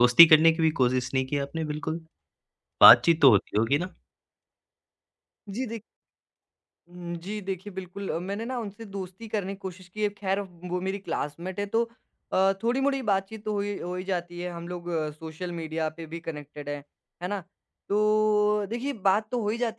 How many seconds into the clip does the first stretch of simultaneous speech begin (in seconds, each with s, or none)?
none